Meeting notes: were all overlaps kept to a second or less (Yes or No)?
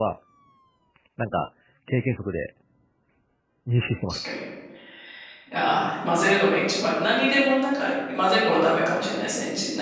Yes